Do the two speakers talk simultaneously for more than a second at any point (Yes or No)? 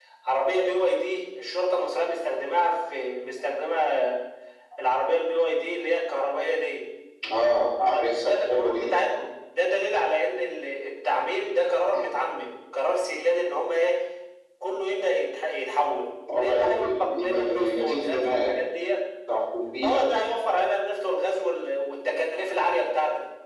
Yes